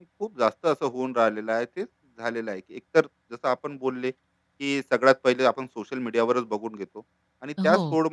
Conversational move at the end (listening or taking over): listening